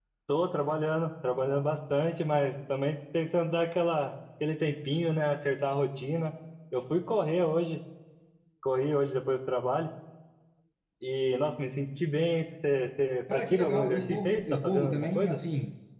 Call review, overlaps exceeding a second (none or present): present